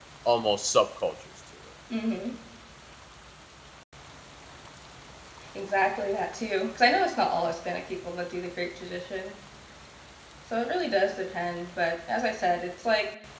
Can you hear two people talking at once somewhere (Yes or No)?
No